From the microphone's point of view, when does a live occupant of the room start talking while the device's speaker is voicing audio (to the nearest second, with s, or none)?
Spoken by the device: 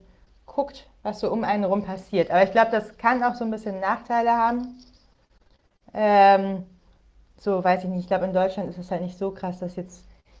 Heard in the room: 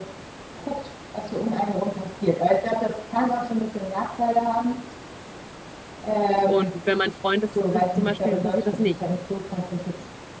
6 s